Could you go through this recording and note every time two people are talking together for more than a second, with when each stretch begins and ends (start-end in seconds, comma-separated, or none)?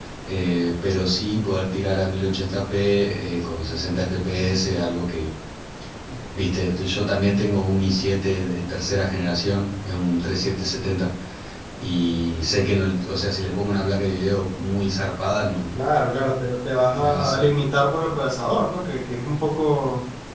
none